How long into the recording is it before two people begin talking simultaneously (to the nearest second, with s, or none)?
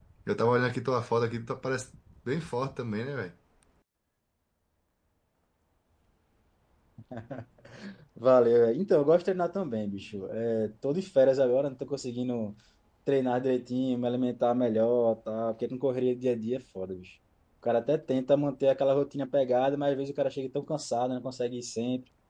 none